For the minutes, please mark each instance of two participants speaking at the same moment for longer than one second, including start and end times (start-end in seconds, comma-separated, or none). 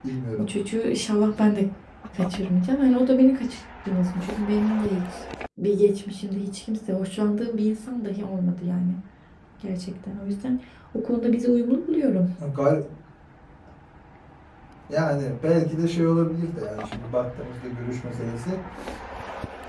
none